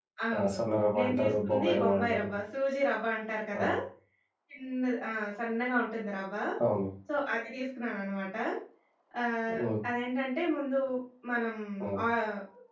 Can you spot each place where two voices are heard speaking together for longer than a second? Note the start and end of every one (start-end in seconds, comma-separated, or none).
1.0-2.3